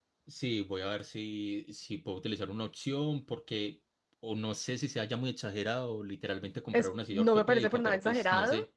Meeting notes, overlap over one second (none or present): present